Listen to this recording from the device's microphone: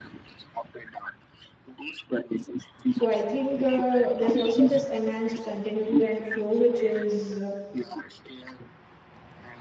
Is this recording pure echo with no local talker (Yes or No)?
No